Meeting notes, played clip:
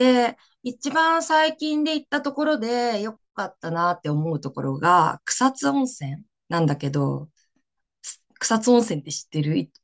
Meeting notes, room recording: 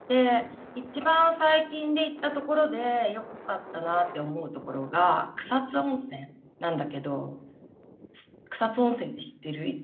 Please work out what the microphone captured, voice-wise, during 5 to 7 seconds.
echo only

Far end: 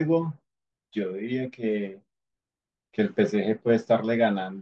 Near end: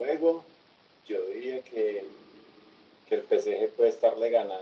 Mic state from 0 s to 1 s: echo only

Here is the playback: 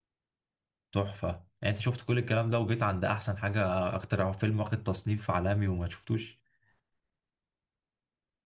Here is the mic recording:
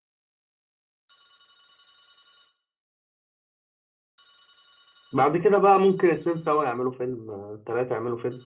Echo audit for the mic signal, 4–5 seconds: neither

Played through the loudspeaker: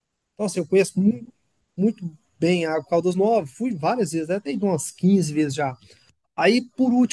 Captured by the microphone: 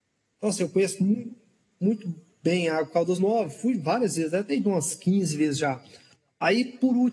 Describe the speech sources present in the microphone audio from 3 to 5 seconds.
echo only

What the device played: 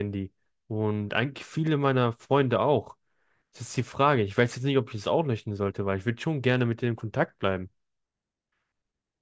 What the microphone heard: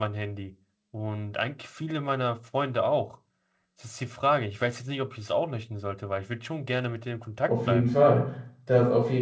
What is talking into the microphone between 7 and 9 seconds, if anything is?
both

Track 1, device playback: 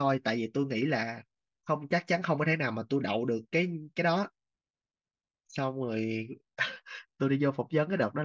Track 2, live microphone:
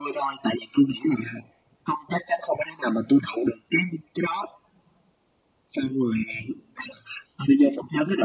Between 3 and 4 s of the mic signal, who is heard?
echo only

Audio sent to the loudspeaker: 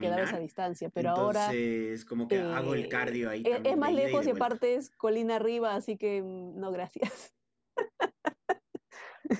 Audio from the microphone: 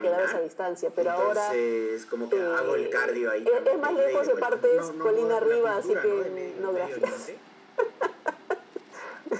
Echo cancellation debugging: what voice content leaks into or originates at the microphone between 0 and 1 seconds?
echo only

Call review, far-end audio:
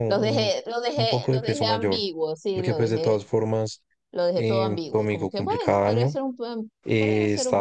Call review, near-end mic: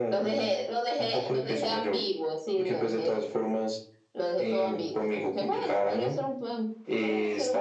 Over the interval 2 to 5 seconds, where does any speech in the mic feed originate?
echo only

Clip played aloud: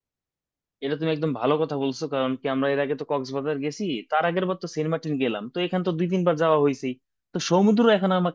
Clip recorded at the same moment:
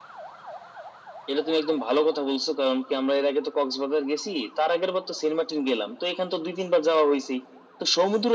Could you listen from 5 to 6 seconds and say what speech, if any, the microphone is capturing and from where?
echo only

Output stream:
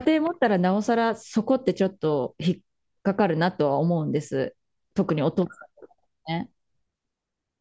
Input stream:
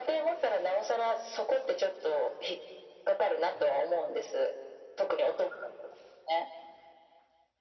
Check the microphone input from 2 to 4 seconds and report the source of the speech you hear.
echo only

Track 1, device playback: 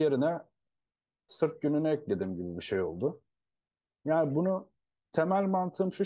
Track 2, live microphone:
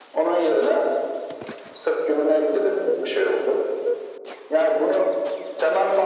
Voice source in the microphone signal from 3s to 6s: echo only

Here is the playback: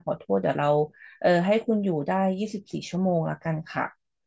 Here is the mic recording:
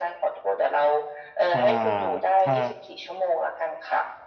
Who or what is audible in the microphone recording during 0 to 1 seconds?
echo only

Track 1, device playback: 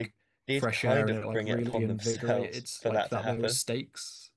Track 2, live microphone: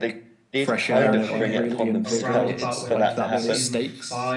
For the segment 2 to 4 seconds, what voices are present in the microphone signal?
both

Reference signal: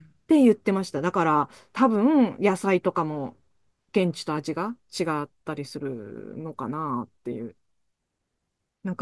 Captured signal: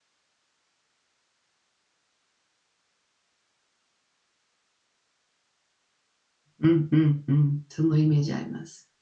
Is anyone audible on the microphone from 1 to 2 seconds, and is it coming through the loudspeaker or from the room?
neither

